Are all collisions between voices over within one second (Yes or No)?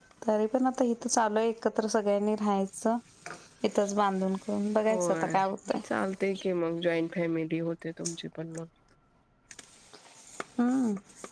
Yes